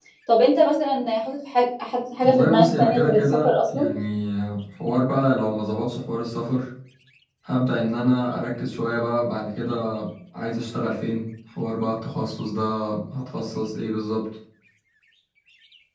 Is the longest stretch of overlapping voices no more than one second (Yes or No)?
No